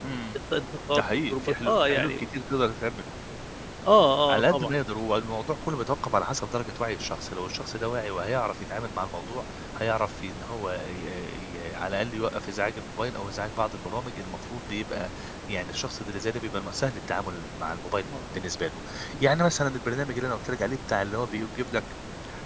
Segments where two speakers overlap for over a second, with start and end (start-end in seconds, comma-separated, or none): 0.9-2.2